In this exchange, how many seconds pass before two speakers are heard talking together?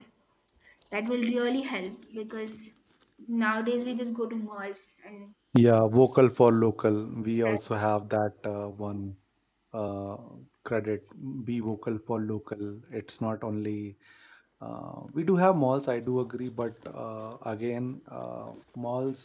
none

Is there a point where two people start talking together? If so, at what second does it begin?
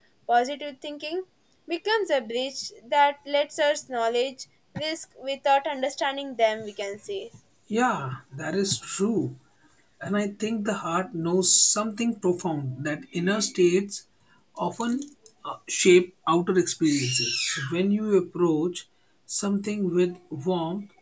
none

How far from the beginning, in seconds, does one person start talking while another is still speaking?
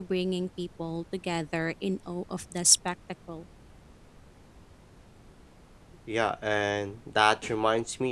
none

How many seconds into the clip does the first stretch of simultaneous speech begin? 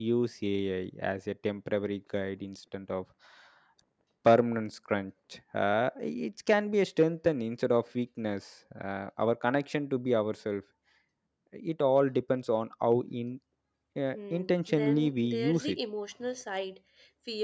14.1 s

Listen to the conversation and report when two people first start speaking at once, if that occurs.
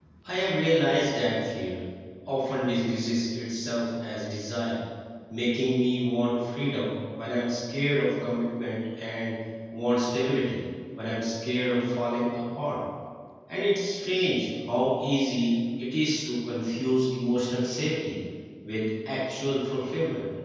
none

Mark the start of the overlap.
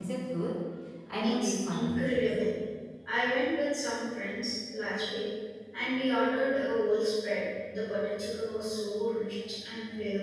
1.2 s

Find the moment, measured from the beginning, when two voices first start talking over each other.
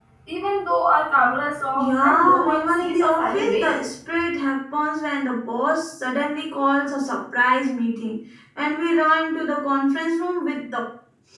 1.7 s

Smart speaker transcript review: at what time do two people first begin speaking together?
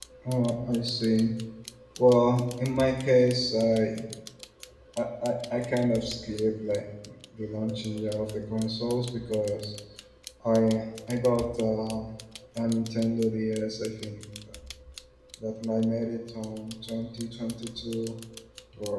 none

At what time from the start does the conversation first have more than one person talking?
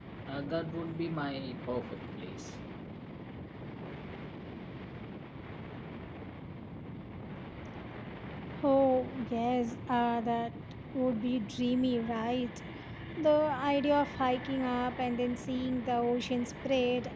none

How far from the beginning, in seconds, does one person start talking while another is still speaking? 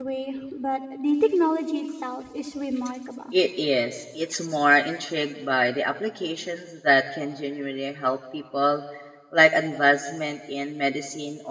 none

